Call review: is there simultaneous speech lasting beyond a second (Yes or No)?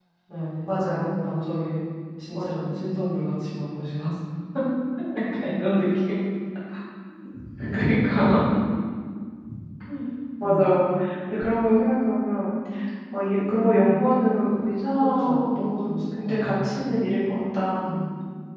Yes